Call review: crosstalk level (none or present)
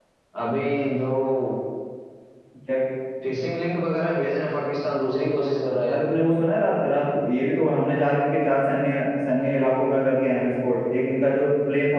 none